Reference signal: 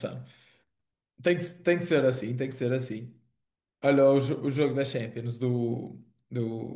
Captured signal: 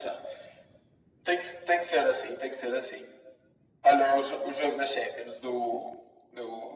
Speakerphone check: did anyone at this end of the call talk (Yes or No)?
No